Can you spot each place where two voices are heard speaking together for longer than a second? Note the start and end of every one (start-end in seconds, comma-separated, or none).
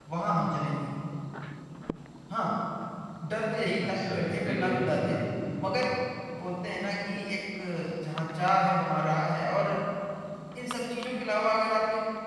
3.8-5.2